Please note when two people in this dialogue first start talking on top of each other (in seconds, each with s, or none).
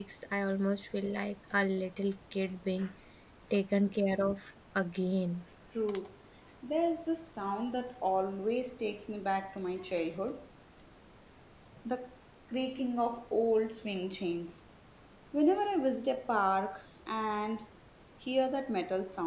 none